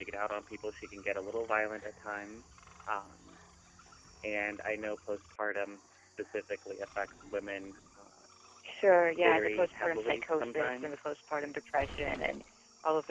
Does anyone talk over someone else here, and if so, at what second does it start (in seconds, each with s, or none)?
9.2 s